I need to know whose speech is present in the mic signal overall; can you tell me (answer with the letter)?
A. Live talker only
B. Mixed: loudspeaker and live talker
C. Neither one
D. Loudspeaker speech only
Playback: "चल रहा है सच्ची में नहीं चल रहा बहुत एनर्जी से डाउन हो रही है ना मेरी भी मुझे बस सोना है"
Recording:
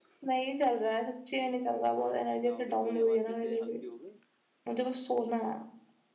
B